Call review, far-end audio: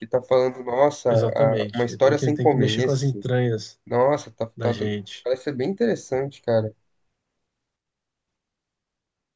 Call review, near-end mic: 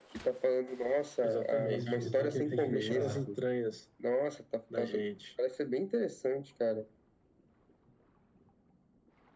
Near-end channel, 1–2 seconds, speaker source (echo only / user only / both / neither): both